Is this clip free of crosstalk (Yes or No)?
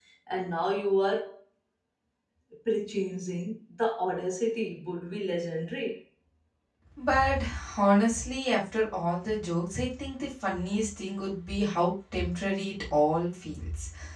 Yes